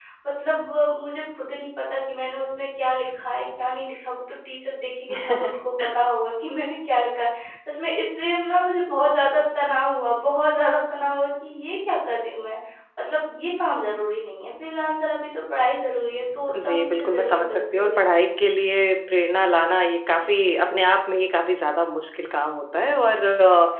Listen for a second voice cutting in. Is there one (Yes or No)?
Yes